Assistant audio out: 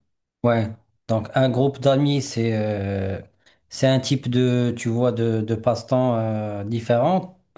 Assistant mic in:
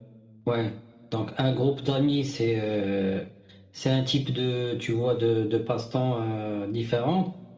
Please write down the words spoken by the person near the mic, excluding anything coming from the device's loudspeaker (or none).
none